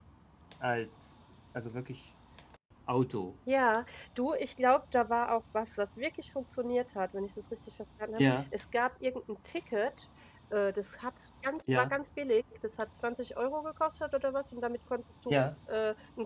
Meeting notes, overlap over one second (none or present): none